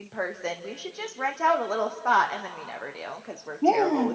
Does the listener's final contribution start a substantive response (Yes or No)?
Yes